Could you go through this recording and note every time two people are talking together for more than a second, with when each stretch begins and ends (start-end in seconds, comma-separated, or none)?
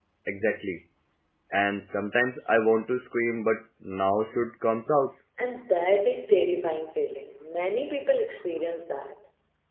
none